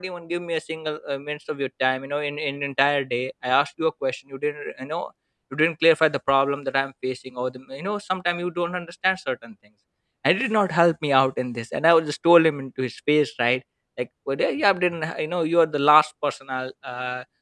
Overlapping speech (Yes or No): No